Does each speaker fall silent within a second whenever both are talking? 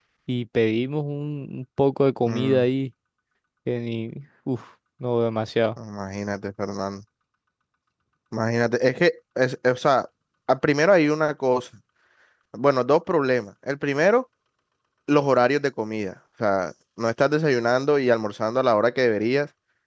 Yes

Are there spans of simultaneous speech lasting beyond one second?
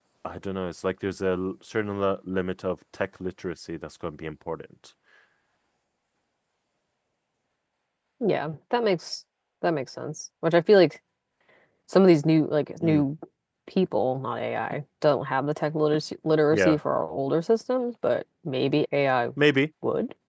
No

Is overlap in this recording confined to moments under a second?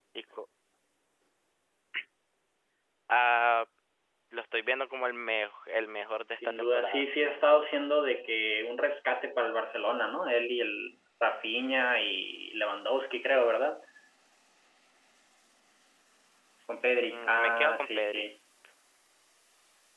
No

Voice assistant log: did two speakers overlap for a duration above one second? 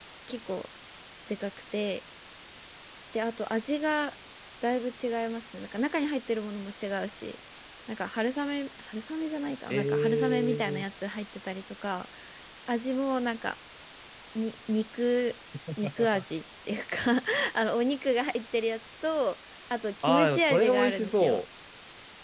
Yes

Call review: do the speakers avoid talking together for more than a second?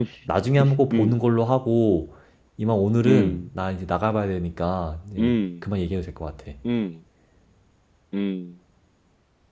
Yes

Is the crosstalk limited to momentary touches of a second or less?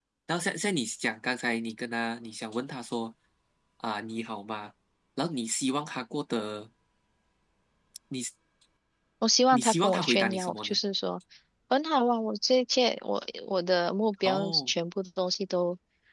No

